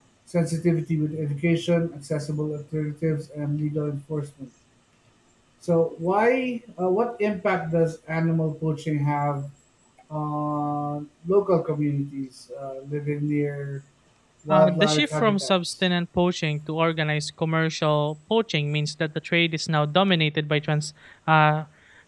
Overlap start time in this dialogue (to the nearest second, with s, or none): 14 s